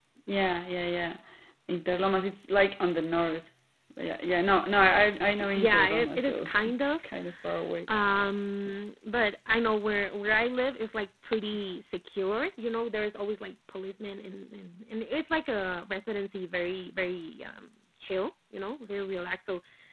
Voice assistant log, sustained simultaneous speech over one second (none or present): present